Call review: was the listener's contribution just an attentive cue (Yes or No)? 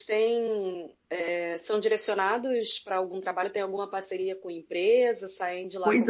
No